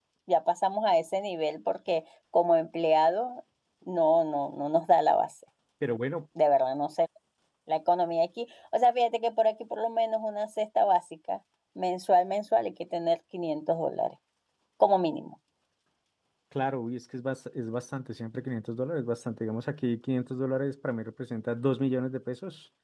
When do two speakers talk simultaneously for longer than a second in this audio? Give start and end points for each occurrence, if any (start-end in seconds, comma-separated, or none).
none